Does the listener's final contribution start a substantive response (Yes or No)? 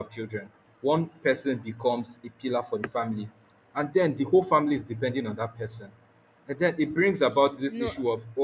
No